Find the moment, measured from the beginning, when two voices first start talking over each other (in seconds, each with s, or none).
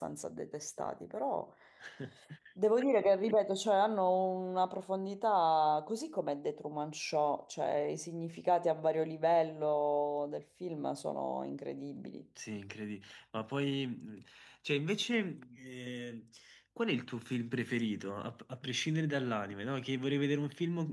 none